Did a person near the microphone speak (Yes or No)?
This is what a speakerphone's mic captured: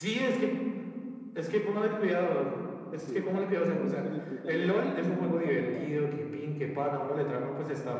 Yes